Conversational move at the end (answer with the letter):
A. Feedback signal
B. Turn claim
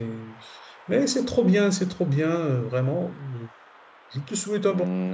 B